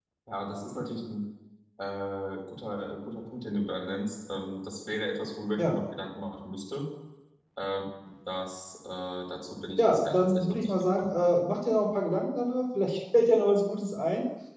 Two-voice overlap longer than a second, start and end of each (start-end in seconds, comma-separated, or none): 9.8-11.1